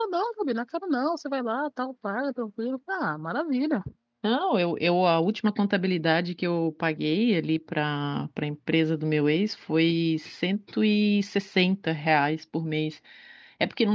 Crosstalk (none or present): none